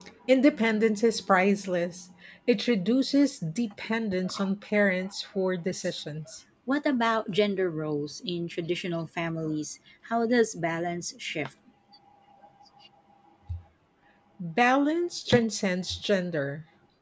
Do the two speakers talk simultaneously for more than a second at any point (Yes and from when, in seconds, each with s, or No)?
No